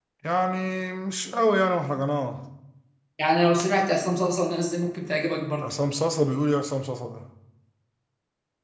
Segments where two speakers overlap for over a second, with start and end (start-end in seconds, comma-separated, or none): none